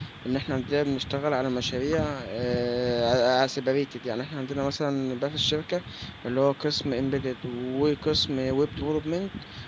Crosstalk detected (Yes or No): No